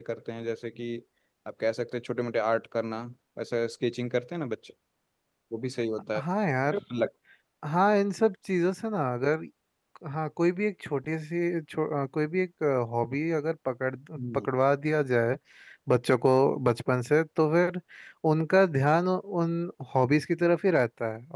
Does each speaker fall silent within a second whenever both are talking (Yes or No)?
Yes